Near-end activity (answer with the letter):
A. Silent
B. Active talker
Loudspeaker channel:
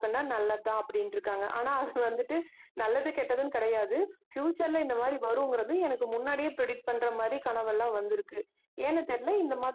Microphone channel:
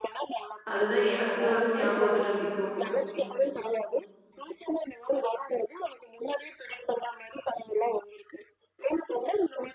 B